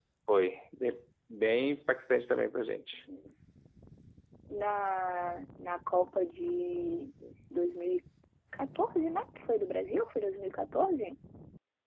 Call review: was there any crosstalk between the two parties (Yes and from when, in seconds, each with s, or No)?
No